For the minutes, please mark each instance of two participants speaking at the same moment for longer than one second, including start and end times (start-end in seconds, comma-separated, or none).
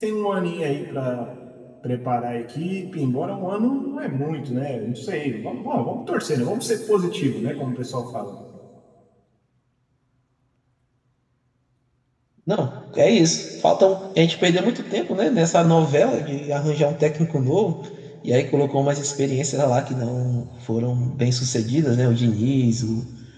none